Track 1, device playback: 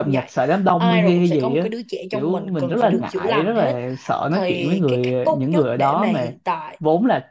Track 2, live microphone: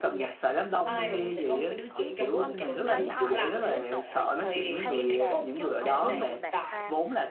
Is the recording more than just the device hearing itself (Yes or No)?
Yes